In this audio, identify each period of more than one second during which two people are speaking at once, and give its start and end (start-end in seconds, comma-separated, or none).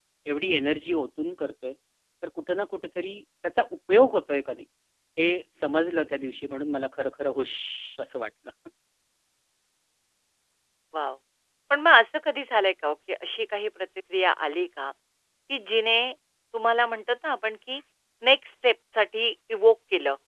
none